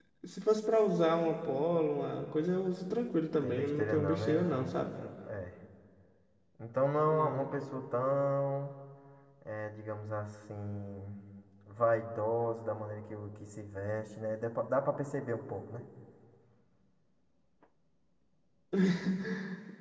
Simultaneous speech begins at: 3 s

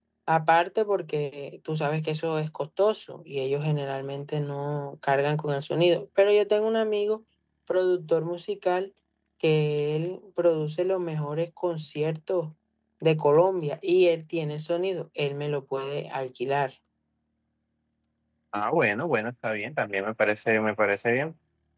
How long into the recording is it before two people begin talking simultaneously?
none

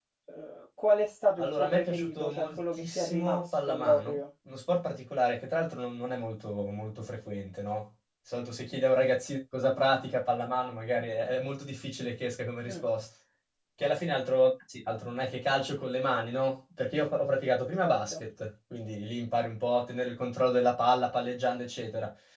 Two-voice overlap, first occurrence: 1 s

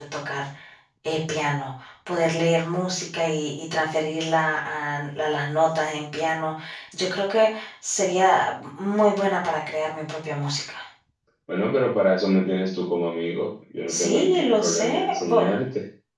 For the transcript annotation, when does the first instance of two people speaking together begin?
14 s

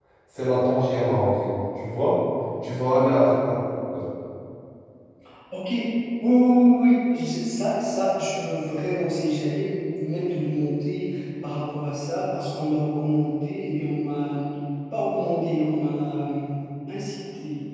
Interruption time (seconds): none

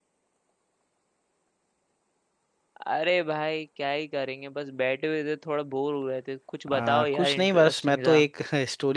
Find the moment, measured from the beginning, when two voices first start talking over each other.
7 s

